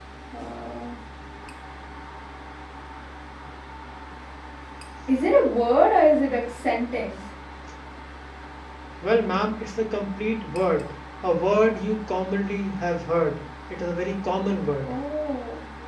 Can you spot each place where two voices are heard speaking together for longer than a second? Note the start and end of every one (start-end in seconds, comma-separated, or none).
none